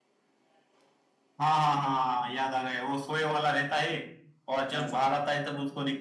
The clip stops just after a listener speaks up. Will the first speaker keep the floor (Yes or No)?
Yes